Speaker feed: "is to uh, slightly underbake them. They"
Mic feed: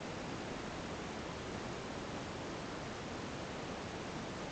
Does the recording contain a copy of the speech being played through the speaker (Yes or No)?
No